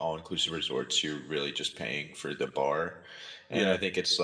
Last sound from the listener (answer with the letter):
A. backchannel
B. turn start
A